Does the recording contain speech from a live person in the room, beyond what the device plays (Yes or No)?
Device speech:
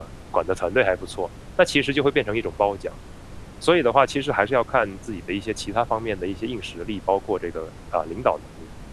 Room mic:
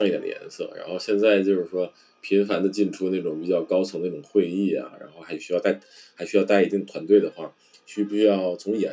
Yes